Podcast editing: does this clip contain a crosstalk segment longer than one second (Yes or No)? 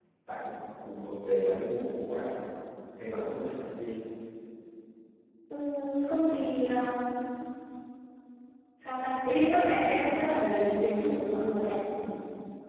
No